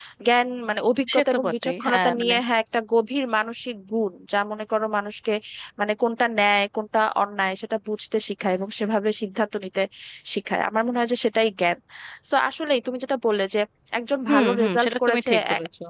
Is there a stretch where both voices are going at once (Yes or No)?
Yes